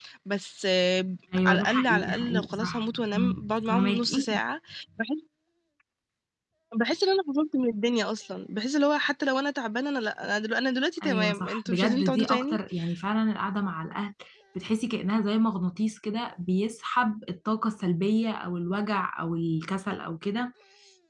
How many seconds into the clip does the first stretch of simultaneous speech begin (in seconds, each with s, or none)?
1.4 s